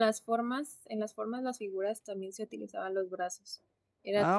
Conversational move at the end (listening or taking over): taking over